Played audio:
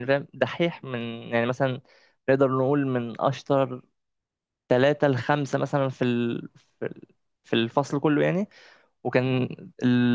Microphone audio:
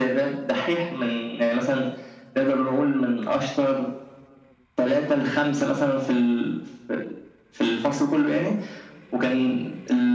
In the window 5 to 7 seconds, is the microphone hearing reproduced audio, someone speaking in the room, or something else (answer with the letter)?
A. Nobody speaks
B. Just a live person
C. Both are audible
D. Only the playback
D